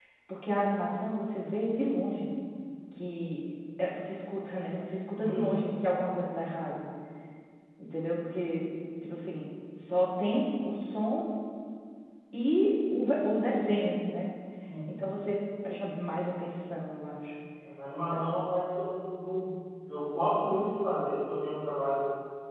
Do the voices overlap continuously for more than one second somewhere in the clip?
No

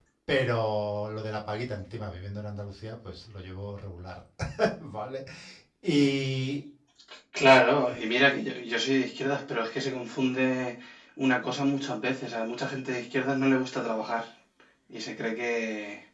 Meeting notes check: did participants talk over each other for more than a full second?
No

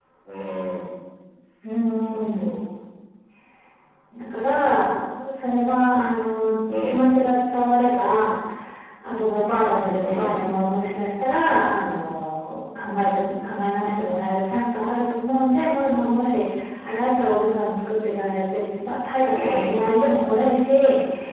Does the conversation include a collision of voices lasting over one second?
No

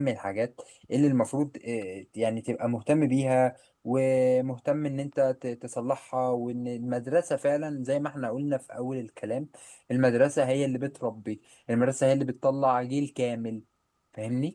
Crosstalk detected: No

